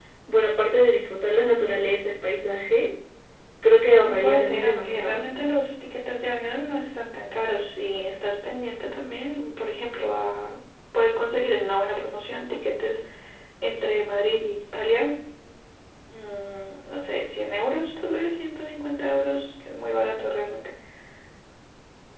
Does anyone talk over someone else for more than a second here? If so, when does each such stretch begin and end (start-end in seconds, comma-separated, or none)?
4.0-5.2